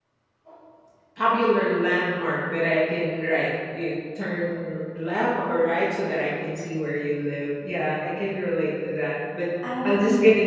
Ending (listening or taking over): listening